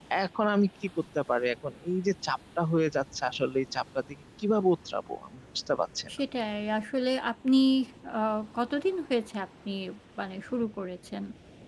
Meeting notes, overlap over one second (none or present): none